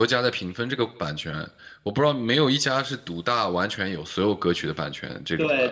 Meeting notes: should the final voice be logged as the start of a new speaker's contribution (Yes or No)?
Yes